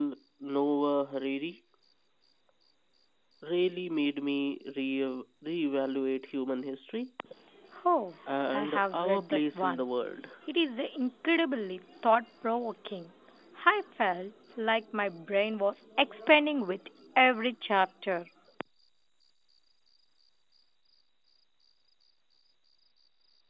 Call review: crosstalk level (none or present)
present